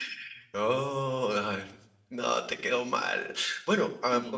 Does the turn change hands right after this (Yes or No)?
No